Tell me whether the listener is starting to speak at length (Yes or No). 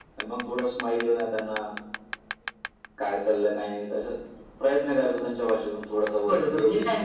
Yes